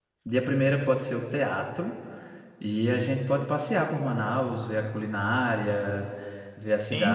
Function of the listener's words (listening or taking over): taking over